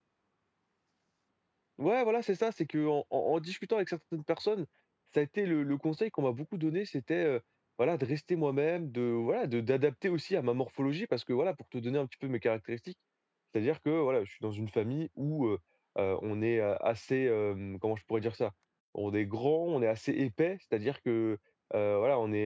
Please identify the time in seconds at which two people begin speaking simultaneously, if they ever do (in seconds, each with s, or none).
none